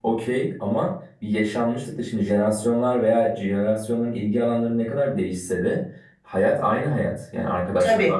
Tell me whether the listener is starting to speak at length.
No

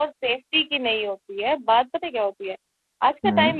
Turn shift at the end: No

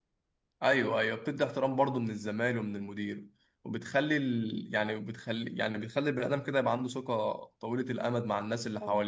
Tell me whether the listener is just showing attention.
No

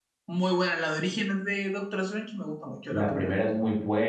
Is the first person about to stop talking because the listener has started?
Yes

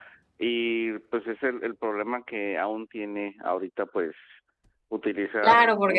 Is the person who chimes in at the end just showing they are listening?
No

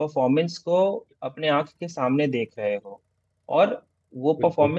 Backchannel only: Yes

